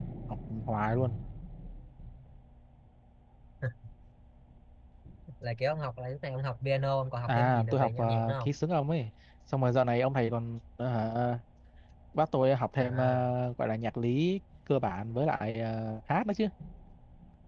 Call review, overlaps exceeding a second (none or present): present